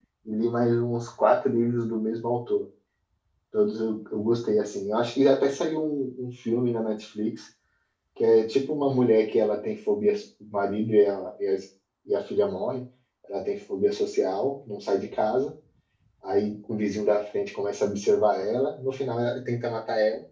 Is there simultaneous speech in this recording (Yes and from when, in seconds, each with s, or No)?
No